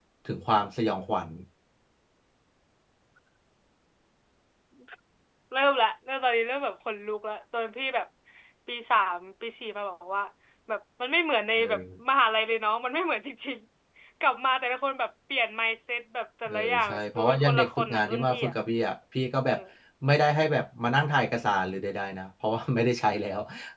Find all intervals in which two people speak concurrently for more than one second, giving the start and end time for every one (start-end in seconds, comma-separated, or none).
16.5-18.5